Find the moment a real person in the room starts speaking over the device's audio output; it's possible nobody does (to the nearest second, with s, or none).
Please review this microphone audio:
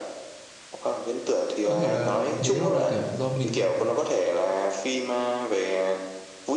2 s